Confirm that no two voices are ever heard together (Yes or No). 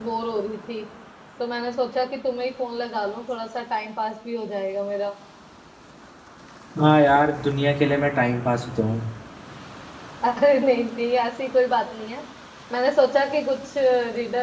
Yes